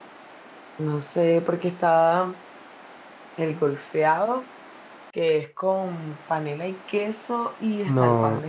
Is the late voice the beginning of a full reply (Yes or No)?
Yes